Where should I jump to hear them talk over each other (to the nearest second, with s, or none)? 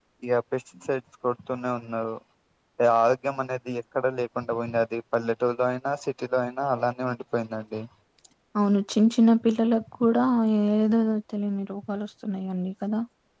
none